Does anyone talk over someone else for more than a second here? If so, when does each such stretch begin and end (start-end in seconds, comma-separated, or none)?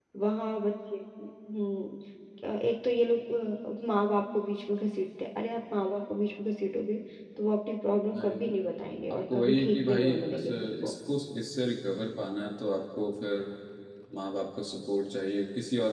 9.1-10.9